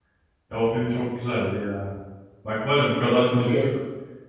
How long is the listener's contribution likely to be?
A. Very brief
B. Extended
A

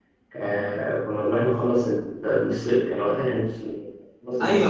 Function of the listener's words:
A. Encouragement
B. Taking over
B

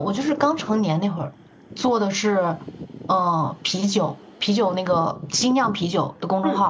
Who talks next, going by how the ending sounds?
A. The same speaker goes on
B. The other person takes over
B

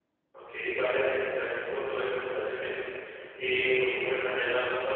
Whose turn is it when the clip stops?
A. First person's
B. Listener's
A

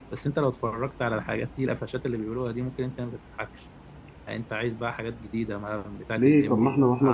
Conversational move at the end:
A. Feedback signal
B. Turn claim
B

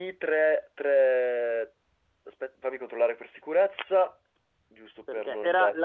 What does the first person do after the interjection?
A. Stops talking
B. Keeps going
A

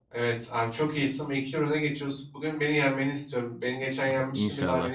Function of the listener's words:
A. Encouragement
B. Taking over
A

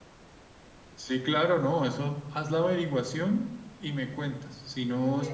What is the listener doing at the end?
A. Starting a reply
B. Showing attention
B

